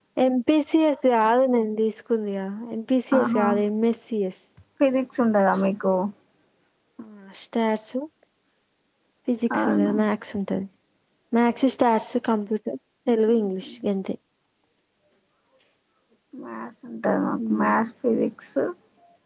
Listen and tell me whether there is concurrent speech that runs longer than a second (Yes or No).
No